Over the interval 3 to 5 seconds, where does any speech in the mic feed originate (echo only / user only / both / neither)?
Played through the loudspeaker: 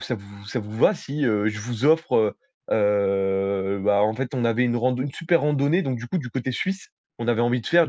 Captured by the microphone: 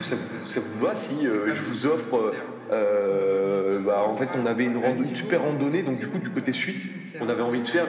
both